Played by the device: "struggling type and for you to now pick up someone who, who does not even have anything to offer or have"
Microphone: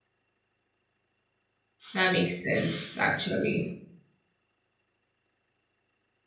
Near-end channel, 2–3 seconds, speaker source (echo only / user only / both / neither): user only